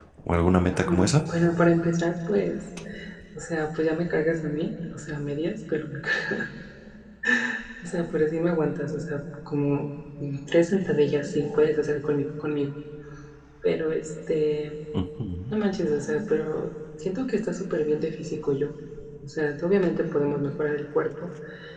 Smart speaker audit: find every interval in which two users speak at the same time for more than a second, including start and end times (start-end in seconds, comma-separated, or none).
none